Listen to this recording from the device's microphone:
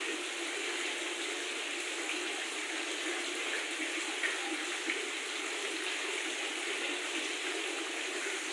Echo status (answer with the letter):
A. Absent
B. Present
A